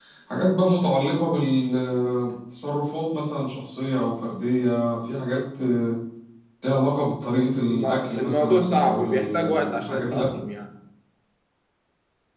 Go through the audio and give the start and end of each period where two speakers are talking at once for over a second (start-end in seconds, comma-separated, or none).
7.7-10.2